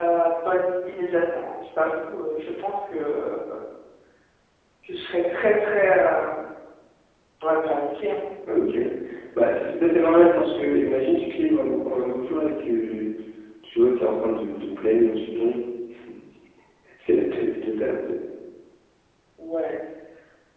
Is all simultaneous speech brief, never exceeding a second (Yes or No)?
Yes